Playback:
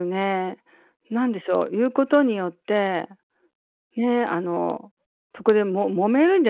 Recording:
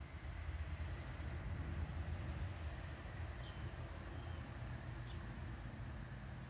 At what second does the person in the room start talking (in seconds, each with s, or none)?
none